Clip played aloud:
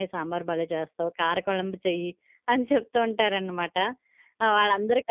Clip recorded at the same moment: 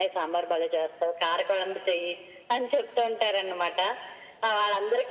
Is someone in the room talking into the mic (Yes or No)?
No